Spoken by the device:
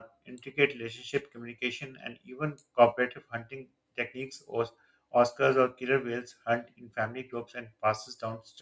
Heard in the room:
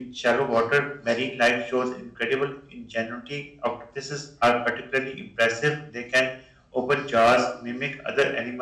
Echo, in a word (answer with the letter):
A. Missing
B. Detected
A